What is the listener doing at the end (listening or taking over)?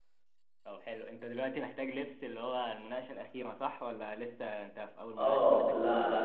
taking over